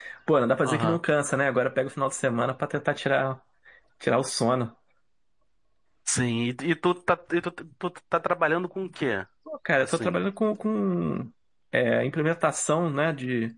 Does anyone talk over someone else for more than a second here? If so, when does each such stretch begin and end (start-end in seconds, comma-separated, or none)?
none